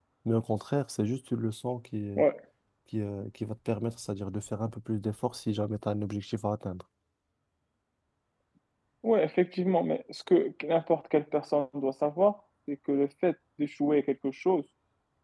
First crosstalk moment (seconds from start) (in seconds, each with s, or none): none